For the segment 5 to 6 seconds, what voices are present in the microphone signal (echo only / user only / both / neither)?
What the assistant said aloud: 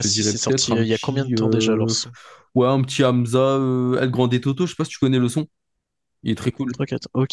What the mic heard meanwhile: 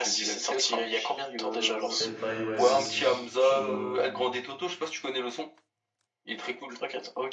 echo only